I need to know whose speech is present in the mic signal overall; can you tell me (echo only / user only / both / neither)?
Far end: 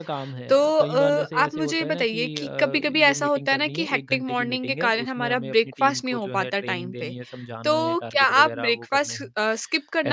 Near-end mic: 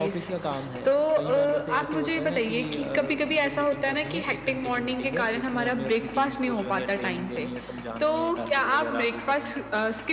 echo only